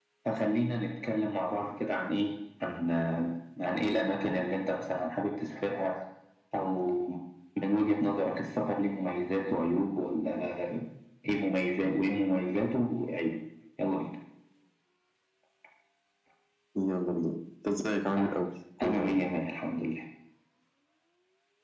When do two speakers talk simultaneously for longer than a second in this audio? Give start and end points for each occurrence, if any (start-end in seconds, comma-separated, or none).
none